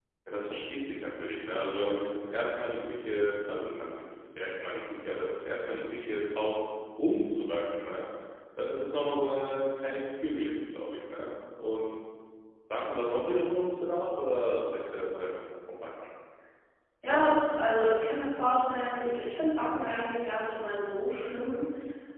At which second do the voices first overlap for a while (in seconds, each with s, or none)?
none